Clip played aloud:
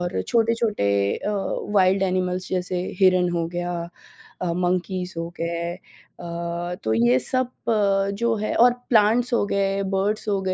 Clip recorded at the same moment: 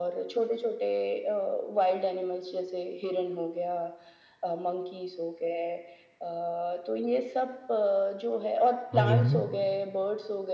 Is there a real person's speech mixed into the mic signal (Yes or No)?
Yes